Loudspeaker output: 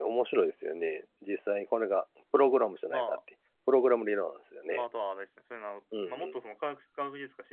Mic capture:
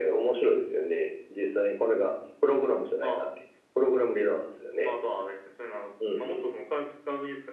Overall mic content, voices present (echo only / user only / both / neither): echo only